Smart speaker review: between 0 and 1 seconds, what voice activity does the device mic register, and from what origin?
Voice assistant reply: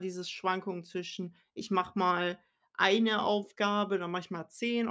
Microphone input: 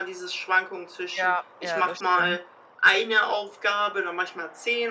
echo only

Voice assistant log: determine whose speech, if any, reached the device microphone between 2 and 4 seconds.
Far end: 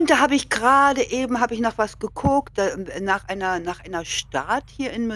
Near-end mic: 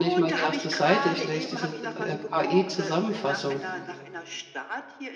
both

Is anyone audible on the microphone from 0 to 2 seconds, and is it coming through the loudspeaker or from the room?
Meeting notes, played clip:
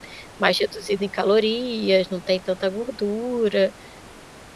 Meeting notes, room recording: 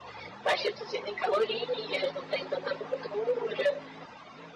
echo only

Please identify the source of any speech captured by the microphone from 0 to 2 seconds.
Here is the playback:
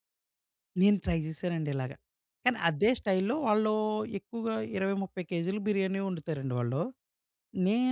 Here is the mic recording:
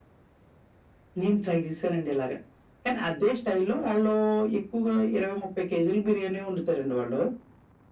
echo only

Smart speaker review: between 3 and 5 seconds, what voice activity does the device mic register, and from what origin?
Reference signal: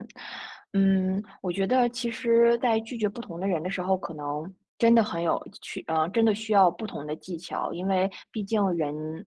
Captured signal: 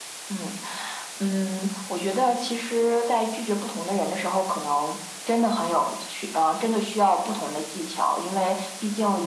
echo only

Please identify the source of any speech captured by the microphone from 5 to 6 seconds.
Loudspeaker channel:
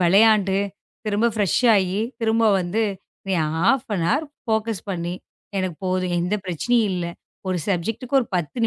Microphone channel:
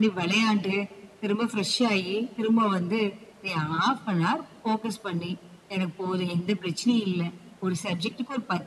echo only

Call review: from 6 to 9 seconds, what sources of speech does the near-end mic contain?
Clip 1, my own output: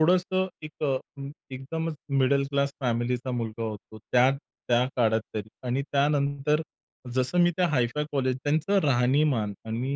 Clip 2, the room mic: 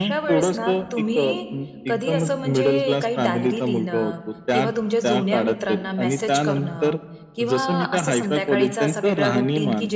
both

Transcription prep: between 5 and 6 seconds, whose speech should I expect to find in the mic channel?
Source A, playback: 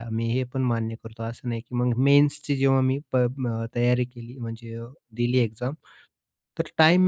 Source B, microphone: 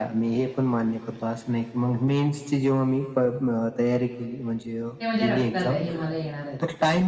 both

